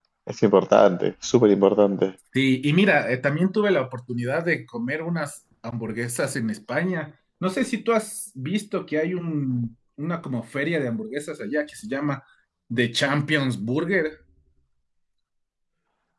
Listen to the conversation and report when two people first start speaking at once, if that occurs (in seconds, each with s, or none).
none